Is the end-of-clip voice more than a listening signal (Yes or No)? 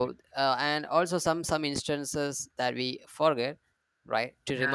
No